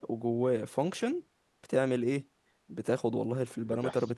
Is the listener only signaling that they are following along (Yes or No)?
Yes